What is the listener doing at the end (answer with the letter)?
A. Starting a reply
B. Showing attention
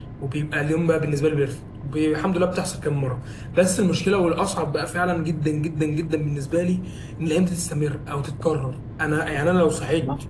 B